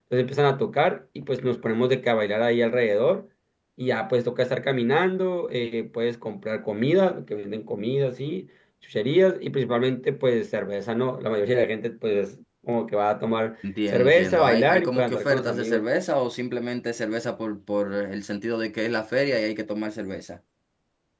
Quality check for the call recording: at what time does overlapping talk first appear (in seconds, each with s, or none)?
13.9 s